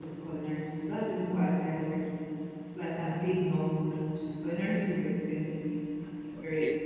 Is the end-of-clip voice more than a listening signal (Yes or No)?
No